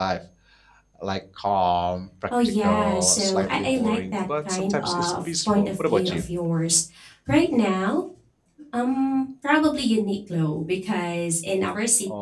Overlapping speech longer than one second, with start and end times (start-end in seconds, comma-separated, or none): 2.6-6.2